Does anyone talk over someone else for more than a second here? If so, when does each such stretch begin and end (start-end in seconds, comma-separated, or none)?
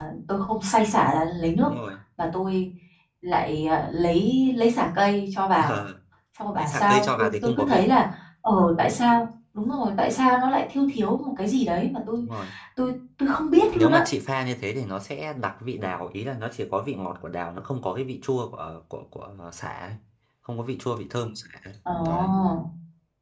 6.6-7.9